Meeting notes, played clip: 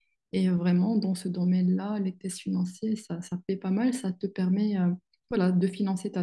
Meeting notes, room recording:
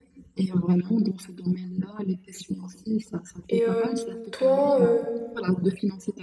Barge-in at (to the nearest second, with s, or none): 3 s